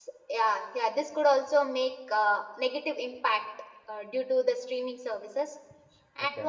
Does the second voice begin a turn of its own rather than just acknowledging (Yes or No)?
No